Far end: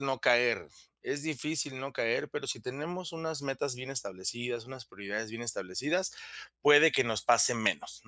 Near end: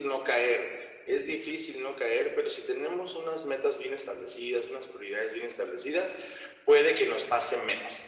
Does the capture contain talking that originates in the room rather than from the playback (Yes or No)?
No